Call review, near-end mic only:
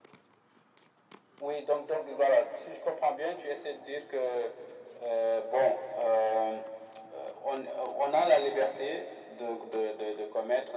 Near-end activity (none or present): none